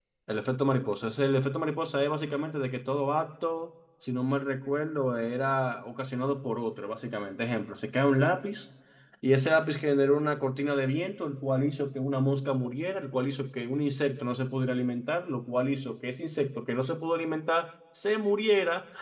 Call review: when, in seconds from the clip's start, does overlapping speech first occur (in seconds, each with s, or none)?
none